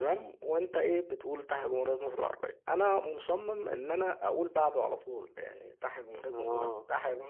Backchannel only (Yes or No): Yes